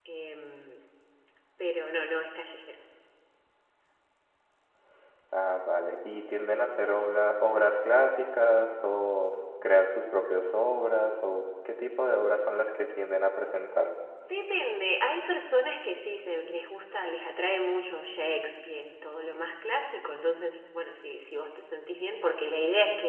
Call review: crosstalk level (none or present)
none